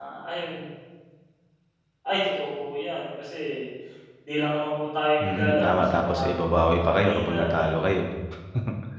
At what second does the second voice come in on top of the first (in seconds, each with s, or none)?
5.2 s